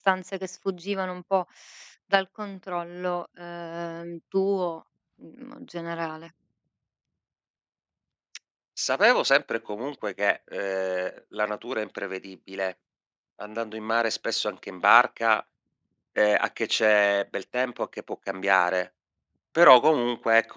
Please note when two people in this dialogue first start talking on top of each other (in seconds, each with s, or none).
none